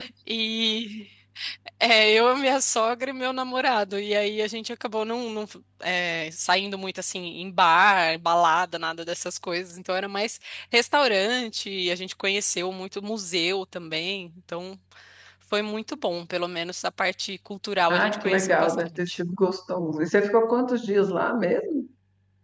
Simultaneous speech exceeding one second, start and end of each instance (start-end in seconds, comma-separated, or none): 17.9-19.2